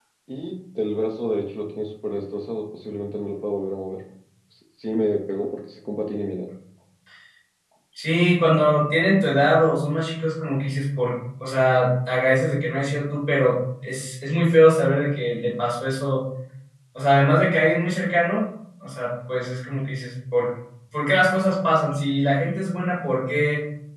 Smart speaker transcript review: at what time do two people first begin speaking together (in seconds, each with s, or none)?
none